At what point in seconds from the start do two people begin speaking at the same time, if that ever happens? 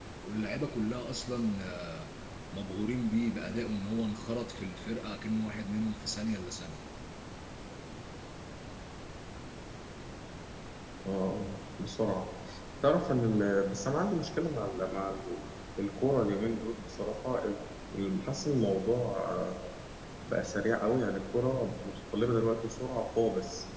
none

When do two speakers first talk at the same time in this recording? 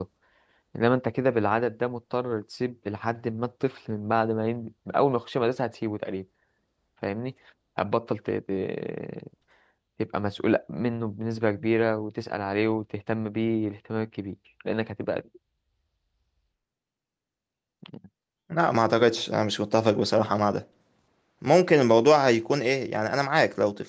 none

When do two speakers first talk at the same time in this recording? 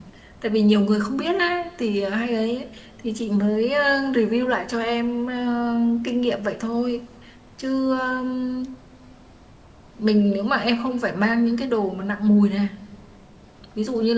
none

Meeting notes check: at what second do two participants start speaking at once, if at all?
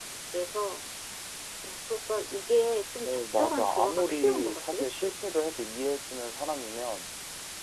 3.0 s

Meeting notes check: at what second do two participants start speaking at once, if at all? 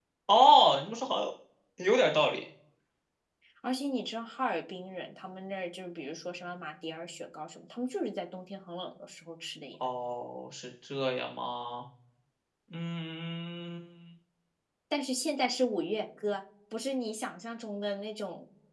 none

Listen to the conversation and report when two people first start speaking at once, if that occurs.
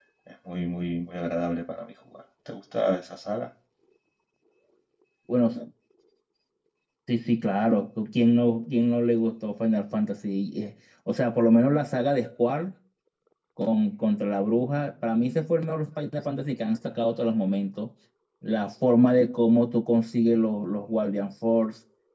none

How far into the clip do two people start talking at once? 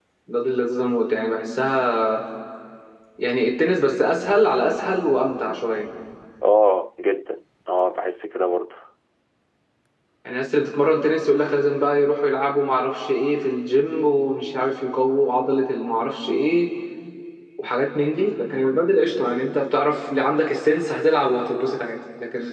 none

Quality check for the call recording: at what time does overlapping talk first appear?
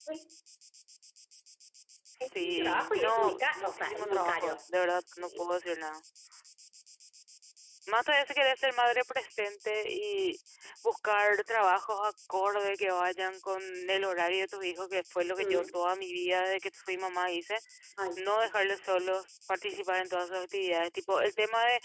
2.2 s

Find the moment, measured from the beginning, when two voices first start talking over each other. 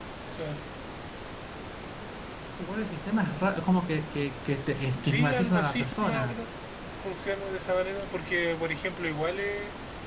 5.0 s

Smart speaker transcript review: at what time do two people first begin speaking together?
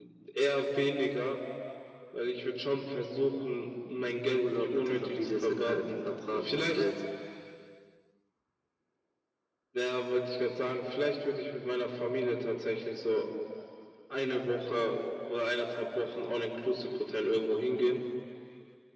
4.3 s

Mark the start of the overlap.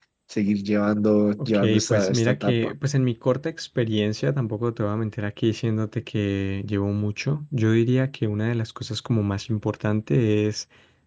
1.4 s

